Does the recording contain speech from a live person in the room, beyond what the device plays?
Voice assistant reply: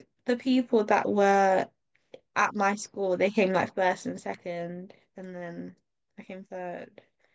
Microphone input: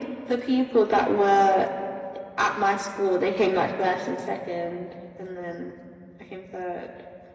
No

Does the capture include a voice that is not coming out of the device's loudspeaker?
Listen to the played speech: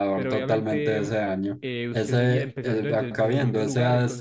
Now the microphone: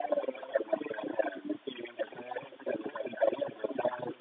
No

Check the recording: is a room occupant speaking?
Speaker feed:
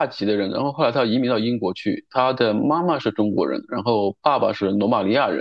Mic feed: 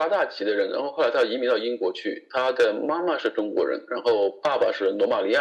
No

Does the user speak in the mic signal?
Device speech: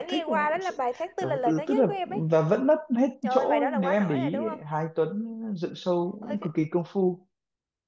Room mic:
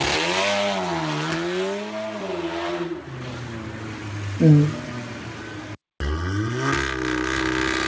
Yes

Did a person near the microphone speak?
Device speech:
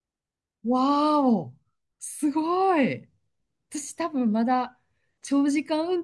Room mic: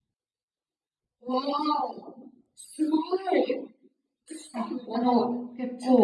Yes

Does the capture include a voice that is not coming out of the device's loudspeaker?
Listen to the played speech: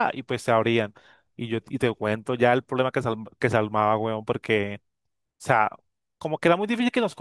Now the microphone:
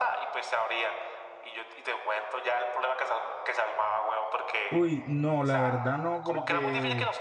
Yes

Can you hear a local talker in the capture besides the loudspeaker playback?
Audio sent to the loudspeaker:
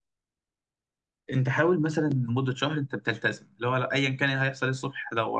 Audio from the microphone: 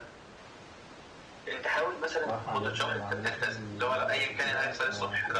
Yes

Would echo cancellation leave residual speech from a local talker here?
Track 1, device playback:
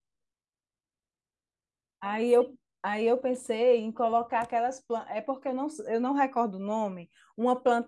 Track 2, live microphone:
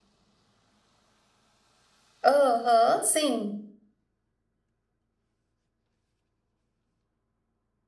Yes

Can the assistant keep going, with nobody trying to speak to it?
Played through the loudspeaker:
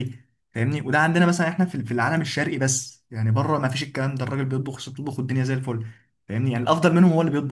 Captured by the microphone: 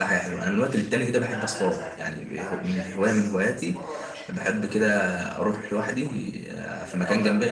No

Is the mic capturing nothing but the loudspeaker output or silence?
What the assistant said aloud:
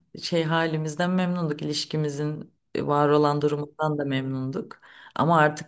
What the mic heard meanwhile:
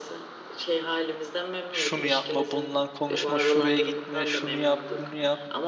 No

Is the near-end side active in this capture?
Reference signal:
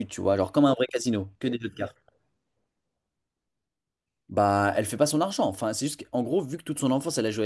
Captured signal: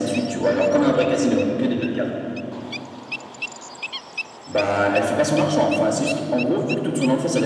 No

